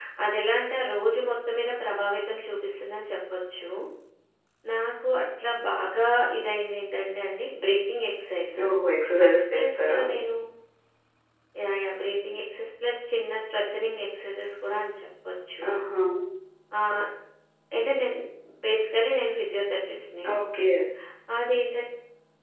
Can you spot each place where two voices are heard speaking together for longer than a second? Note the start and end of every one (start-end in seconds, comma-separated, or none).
none